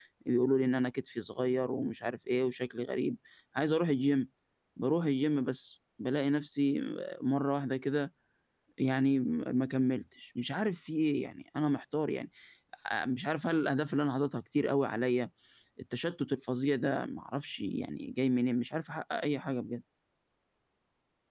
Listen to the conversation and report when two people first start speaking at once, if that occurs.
none

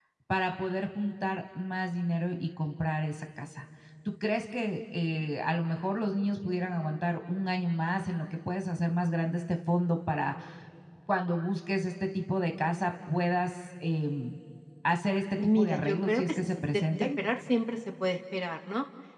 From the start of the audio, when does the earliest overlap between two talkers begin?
15.4 s

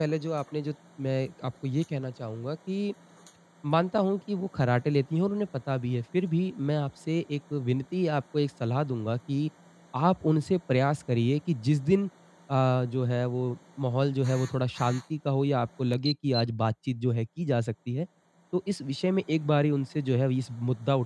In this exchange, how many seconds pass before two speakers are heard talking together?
none

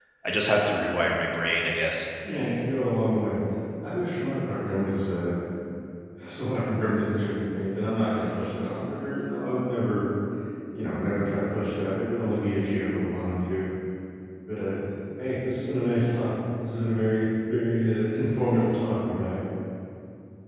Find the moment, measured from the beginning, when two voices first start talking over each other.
none

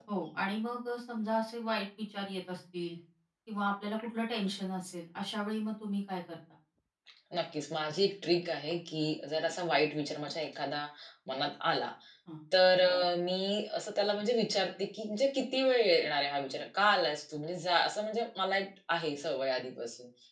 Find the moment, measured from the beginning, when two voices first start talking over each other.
none

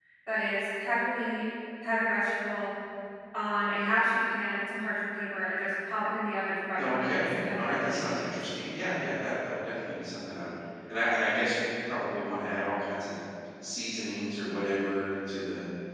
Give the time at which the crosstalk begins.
6.8 s

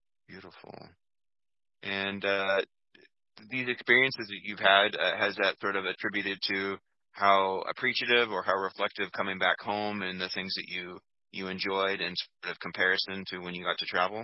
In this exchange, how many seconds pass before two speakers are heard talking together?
none

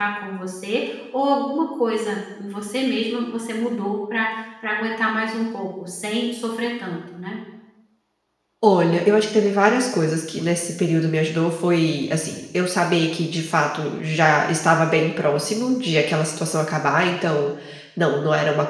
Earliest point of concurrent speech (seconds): none

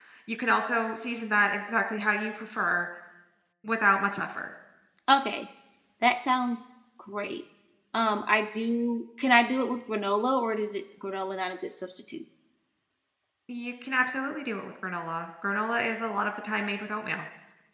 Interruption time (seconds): none

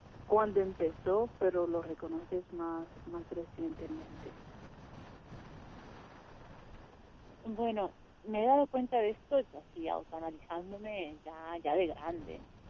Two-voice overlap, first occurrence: none

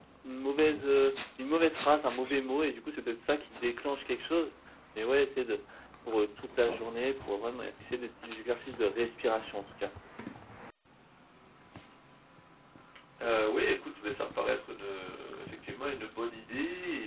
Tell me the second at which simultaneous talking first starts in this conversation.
none

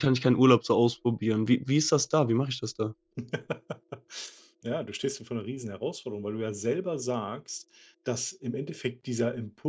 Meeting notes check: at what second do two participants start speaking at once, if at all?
none

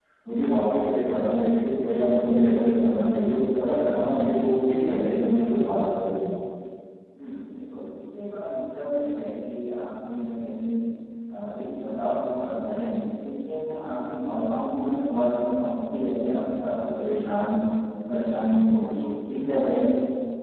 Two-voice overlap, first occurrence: none

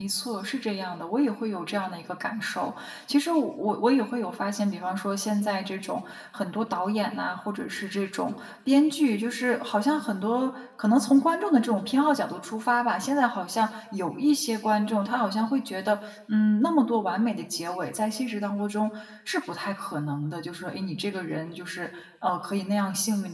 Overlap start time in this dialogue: none

